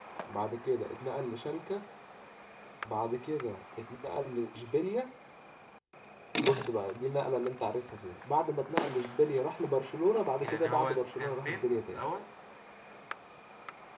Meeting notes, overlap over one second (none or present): present